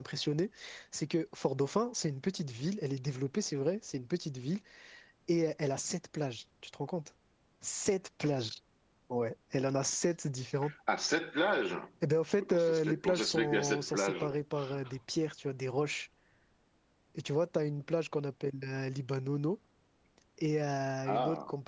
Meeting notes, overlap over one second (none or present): present